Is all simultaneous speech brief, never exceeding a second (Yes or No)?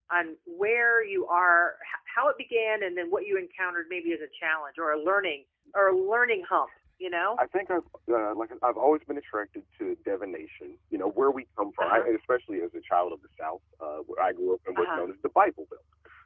Yes